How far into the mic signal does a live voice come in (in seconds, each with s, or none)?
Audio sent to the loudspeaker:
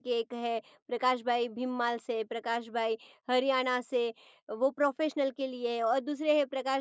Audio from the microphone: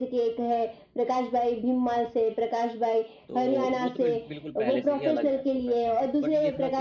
3.3 s